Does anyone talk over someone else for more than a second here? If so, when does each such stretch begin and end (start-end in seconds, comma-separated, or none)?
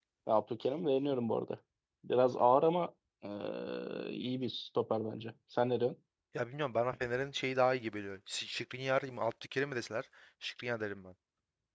none